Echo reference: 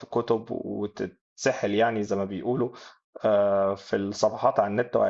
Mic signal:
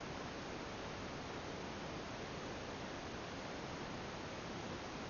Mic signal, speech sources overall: neither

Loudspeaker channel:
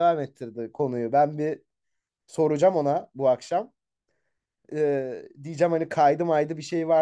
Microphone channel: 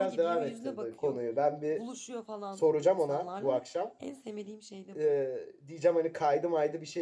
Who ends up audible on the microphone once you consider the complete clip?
both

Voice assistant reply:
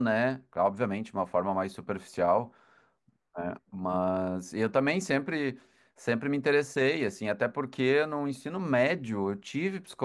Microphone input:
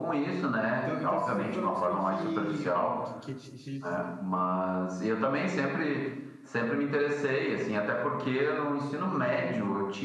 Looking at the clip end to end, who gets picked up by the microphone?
both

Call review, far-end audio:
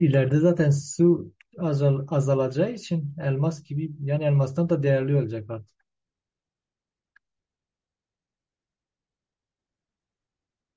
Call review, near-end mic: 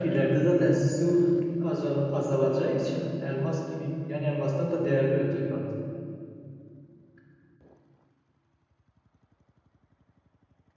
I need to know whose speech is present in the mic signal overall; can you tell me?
echo only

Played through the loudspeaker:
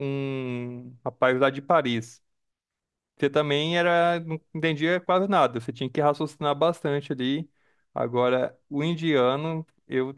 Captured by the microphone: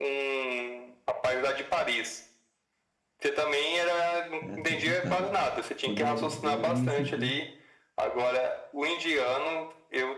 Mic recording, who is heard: both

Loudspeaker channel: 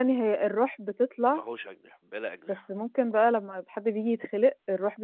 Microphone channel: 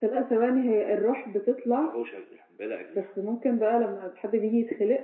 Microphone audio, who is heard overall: echo only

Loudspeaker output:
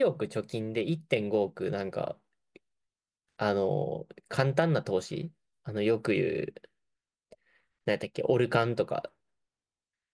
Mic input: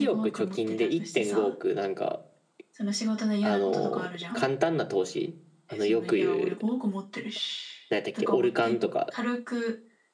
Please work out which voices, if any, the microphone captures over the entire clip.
both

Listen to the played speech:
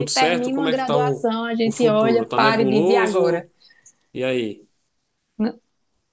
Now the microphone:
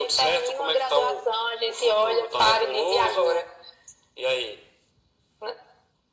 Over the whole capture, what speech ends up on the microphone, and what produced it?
echo only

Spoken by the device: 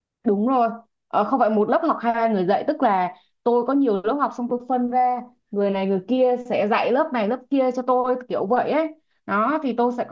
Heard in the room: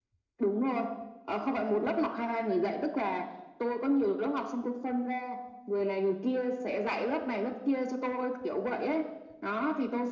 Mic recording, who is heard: echo only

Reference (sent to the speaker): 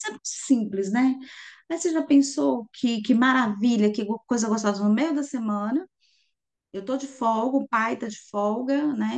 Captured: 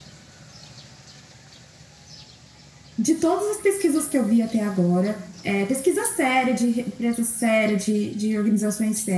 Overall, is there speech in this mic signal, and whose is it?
user only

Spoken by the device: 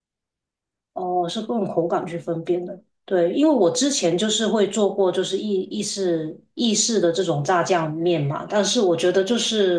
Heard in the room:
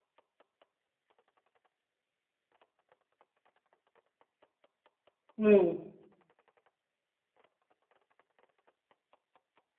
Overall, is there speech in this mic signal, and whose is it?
user only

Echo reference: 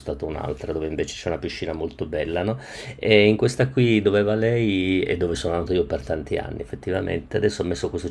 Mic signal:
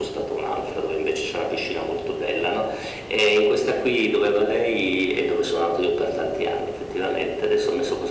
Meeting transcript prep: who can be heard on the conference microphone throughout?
echo only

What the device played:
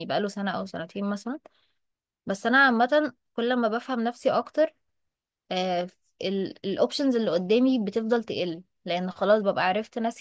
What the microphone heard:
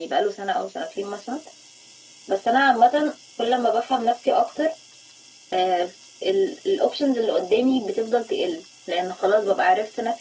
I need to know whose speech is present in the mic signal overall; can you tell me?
echo only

